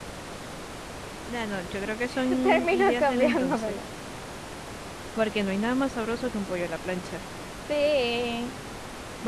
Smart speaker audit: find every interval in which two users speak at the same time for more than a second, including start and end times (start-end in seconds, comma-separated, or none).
2.4-3.8